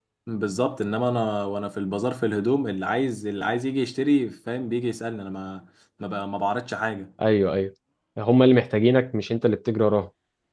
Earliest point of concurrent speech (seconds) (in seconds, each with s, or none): none